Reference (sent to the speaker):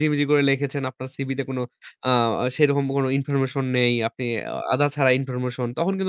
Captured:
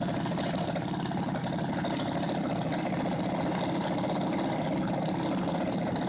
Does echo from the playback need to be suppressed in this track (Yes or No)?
No